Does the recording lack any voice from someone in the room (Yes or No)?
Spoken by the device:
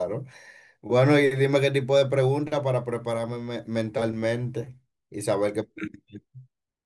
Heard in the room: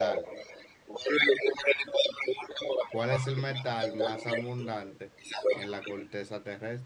No